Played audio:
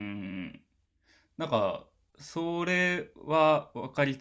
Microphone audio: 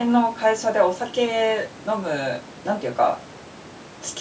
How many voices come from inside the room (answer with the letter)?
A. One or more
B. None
A